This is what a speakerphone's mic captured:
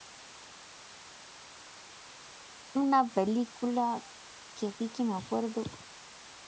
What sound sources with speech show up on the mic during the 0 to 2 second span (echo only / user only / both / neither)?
neither